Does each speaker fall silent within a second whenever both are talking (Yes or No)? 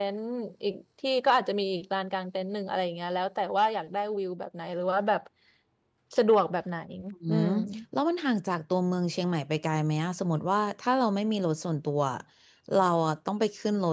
Yes